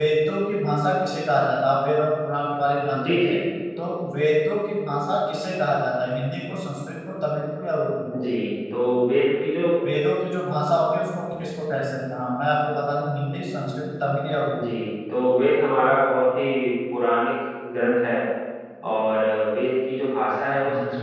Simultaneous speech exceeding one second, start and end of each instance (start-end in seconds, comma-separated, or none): none